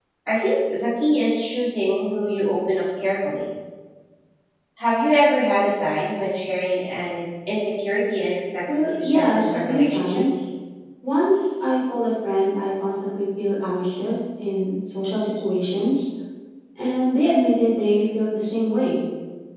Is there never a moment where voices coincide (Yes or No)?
No